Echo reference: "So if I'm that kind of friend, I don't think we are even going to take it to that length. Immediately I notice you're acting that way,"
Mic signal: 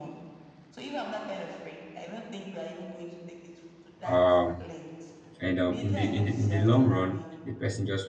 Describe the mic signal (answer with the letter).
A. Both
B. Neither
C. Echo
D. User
A